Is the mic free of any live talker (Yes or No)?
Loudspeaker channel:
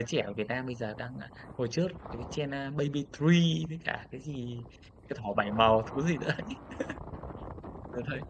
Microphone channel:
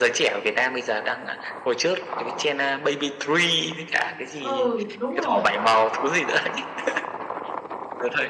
No